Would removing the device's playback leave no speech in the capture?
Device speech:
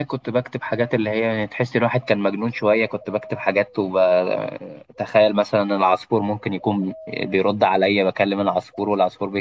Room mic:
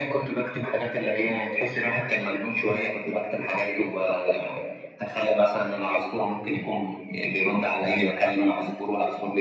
Yes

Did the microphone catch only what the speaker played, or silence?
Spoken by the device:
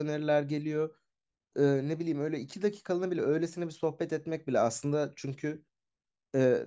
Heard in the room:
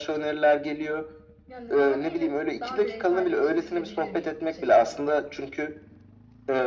No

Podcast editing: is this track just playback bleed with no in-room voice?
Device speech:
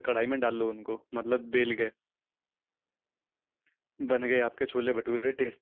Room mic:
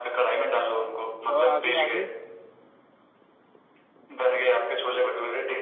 No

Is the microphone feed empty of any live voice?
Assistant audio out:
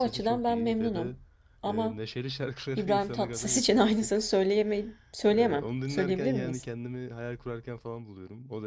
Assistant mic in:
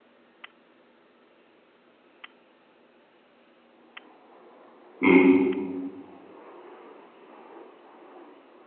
No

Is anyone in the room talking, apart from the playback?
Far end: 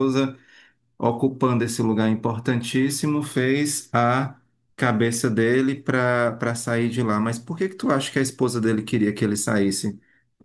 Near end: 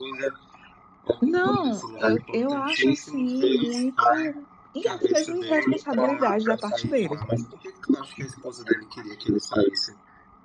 Yes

